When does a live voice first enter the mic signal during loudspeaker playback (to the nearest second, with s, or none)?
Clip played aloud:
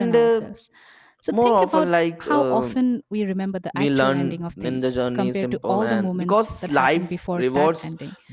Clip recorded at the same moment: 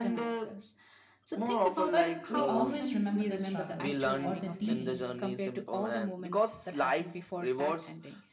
2 s